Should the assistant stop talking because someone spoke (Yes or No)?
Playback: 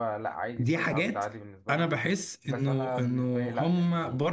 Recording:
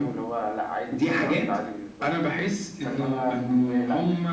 No